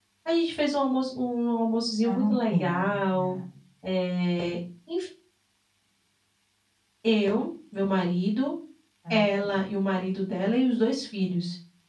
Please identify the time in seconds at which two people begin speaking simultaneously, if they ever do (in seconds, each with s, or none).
2.0 s